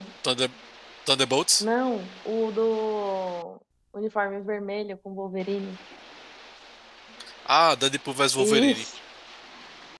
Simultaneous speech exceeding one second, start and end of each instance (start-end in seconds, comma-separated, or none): none